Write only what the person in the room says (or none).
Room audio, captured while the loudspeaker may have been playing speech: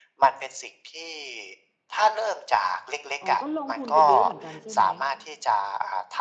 อ๋อ ก็ลงทุนไปเยอะเหมือนกันใช่ไหม?